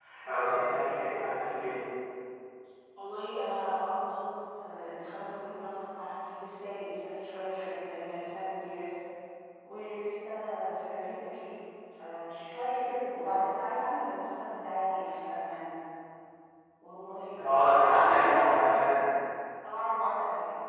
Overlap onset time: 17 s

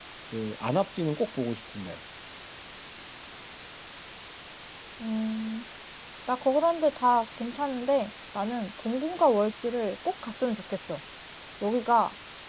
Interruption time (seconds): none

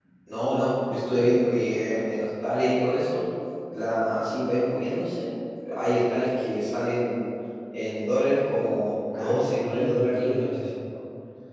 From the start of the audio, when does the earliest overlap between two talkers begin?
9 s

